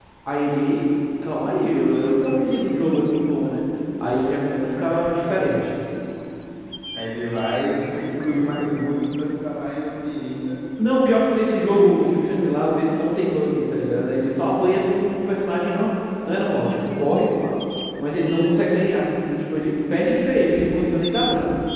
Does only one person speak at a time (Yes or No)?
Yes